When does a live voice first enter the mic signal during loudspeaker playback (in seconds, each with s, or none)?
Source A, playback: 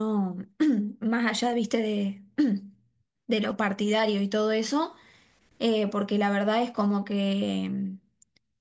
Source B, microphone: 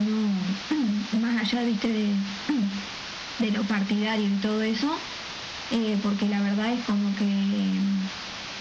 none